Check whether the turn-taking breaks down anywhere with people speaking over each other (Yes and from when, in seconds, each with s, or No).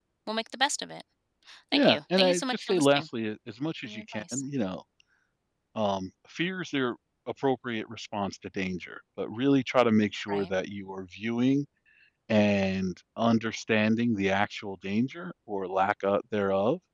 Yes, from 1.7 s